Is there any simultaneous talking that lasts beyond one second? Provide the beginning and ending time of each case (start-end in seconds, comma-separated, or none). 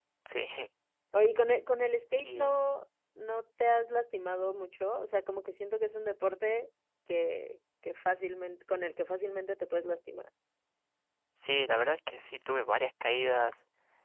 none